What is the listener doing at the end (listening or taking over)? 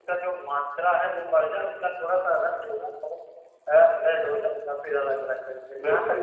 listening